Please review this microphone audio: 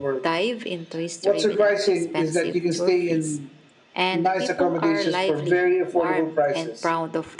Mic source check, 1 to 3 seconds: echo only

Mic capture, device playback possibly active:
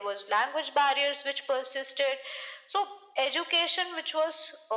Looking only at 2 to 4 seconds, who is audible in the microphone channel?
echo only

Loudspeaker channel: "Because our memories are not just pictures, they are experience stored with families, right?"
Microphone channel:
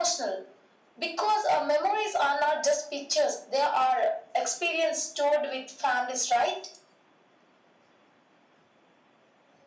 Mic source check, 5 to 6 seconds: echo only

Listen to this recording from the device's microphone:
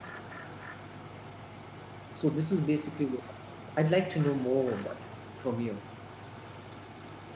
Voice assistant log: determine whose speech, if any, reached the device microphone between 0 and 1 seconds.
neither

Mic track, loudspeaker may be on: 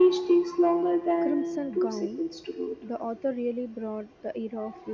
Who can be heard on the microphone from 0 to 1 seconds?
echo only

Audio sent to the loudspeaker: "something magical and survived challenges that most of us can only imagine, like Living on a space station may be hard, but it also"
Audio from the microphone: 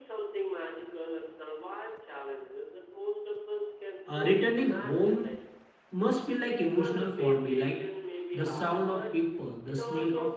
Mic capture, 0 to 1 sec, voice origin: echo only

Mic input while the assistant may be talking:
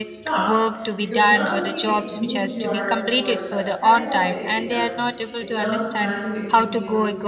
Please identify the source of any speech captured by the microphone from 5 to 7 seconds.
both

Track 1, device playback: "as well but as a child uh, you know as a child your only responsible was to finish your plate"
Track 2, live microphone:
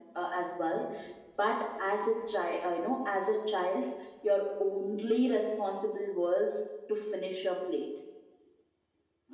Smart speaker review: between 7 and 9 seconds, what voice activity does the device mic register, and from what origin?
echo only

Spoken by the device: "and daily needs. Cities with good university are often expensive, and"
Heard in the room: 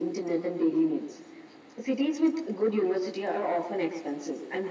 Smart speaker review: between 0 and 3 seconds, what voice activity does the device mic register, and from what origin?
echo only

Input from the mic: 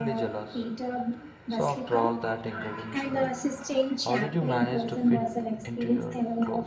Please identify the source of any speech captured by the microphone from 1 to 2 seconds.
both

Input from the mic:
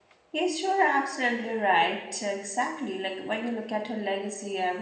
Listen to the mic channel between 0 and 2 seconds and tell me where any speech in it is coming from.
user only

